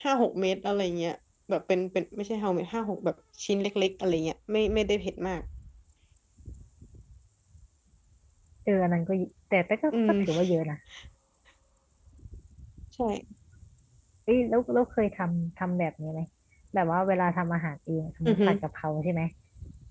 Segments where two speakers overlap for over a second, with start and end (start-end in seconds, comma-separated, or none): none